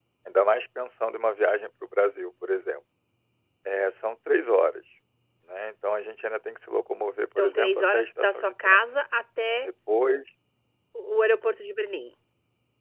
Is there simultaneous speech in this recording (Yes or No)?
Yes